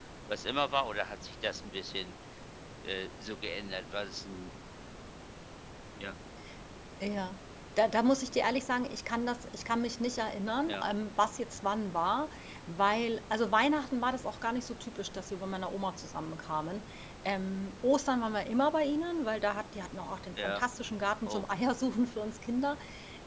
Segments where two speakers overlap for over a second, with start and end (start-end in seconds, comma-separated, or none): none